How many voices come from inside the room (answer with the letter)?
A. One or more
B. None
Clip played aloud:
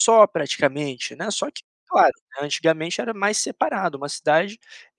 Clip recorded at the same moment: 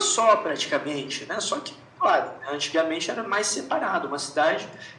B